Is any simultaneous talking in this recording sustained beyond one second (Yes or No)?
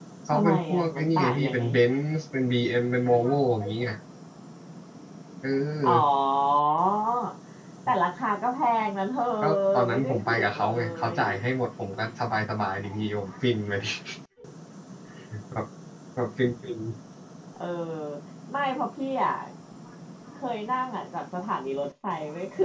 Yes